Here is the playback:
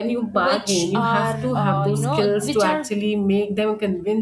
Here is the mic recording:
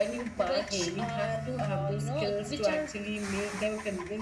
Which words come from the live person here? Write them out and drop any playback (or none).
none